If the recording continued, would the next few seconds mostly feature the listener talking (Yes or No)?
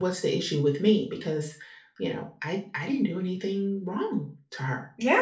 Yes